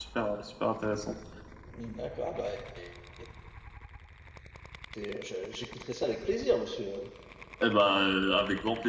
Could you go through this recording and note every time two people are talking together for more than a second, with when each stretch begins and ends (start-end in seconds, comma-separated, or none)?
none